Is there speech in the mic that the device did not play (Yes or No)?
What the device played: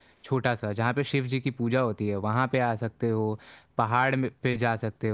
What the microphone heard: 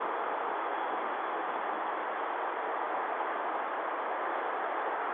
No